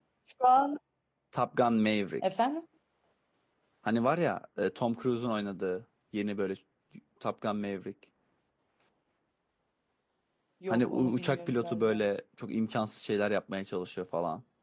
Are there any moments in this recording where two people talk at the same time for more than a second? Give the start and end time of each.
10.7-12.0

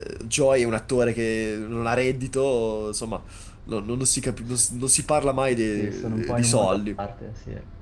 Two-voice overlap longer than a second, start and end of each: 5.6-7.0

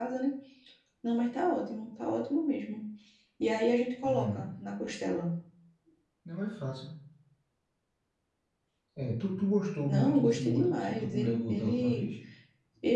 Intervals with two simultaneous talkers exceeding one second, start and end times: 9.9-12.0

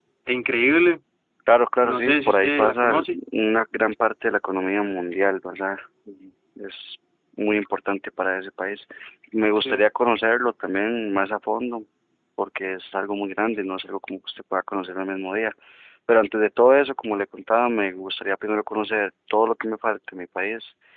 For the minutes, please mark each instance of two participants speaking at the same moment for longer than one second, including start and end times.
1.8-3.2

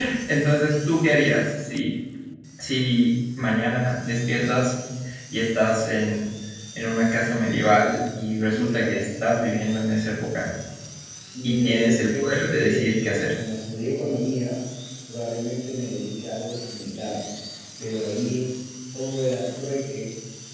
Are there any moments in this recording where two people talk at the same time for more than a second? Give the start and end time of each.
11.4-12.8

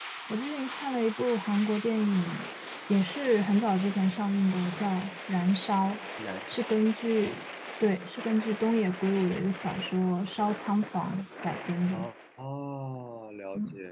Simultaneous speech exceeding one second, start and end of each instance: none

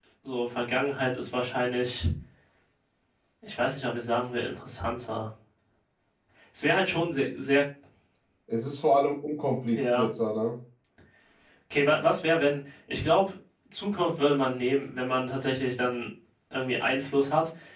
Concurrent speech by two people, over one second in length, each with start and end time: none

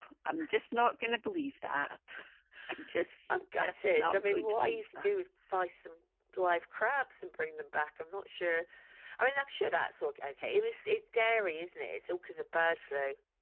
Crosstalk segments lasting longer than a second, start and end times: 3.3-5.1

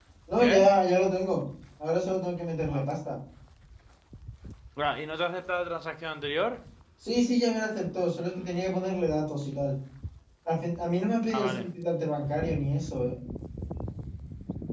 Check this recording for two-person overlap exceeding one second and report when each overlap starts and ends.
none

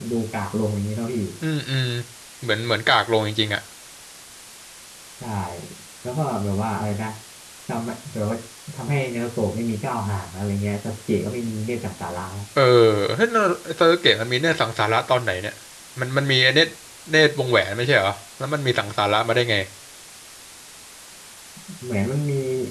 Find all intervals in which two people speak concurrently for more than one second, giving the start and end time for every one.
none

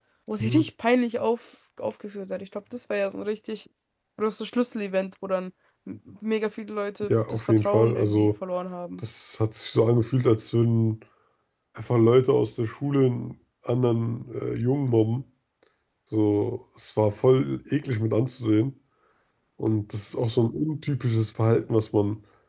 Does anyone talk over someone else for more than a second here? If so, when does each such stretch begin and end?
7.0-8.3

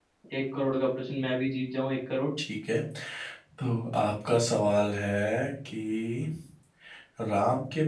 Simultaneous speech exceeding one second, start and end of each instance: none

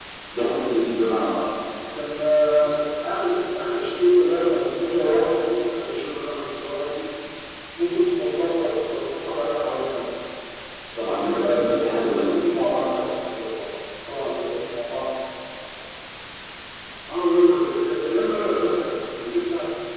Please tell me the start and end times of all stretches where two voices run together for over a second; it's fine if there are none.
11.2-12.5

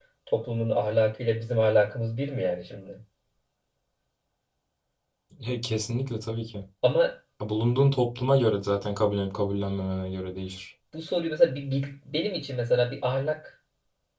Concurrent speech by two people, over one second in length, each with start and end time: none

